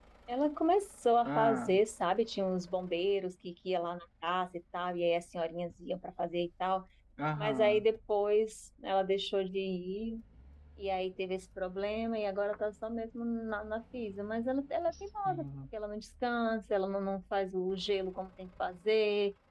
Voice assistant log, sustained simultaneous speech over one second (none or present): none